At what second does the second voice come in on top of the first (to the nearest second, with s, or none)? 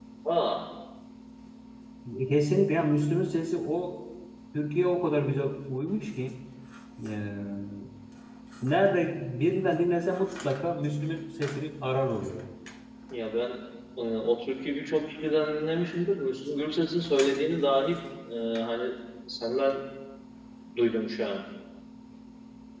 none